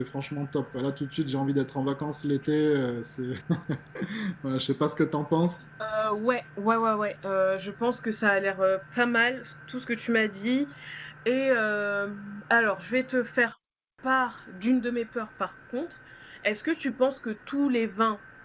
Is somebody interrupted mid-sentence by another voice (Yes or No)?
No